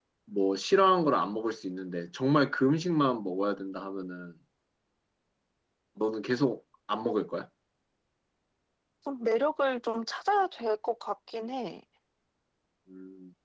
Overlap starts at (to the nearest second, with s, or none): none